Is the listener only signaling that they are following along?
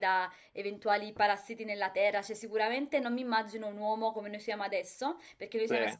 Yes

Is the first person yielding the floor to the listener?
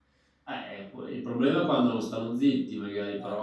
No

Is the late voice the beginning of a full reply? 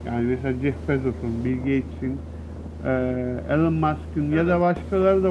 No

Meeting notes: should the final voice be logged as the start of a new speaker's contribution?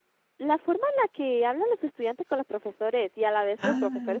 No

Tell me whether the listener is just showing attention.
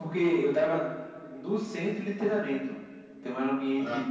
Yes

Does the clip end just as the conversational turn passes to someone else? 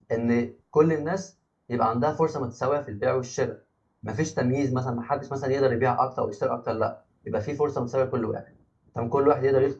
Yes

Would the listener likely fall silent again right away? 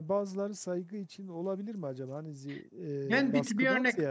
No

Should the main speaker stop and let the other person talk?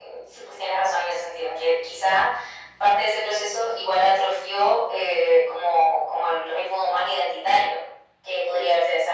No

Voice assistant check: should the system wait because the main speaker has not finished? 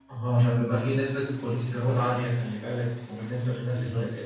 Yes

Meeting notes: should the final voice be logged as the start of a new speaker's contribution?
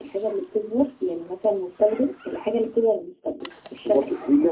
Yes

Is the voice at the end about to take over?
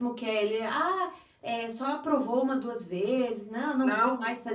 Yes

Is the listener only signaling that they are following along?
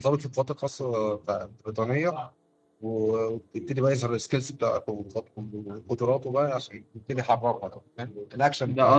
No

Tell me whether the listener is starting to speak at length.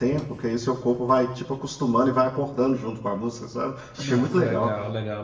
Yes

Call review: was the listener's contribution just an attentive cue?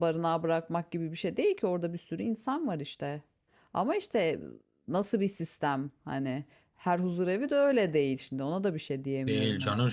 No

